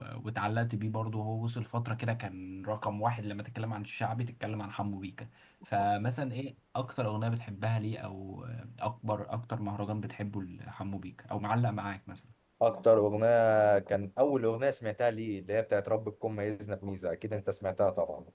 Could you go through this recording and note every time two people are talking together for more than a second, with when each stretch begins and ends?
none

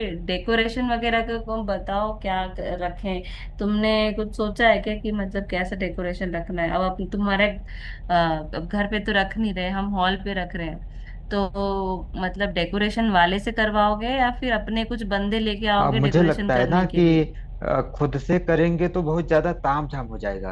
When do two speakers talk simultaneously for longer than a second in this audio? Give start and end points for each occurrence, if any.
15.8-17.3

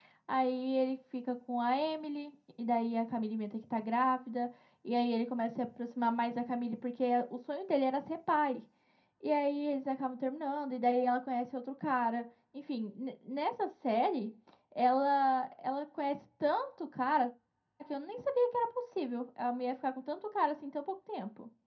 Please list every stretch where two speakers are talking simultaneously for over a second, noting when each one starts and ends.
none

